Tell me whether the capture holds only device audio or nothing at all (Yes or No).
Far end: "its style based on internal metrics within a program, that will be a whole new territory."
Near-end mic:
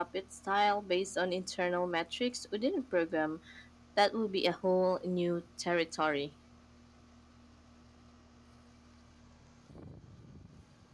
Yes